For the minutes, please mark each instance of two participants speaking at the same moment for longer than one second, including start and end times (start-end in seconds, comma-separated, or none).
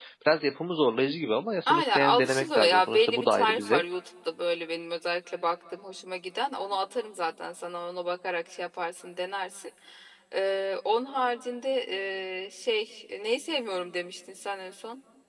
1.7-3.8